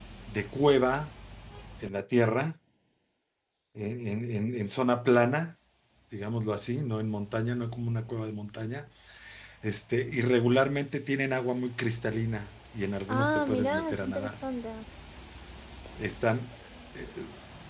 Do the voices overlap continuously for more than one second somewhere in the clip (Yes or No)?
Yes